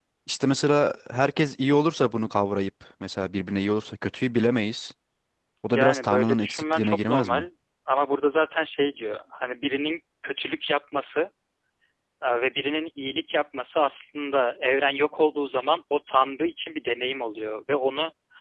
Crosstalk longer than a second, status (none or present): present